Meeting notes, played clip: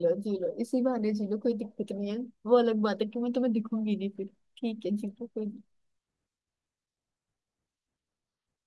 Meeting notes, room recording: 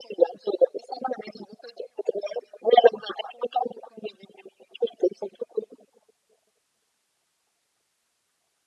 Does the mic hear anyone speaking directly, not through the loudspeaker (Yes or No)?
No